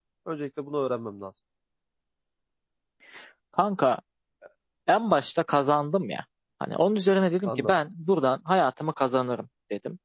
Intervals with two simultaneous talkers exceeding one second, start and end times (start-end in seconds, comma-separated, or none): none